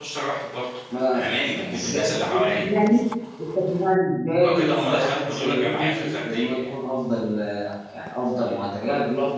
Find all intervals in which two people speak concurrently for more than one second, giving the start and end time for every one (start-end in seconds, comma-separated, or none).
1.1-2.7, 4.4-6.8